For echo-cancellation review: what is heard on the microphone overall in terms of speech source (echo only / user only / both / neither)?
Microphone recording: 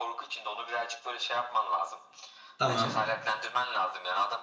both